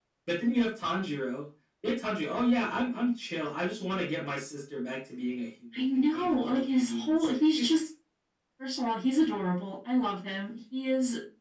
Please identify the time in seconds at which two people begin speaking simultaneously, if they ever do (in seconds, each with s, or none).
5.7 s